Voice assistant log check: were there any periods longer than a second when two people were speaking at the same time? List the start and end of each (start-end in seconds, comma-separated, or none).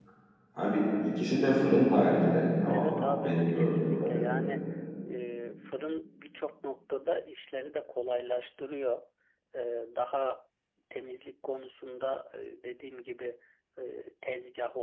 2.7-4.5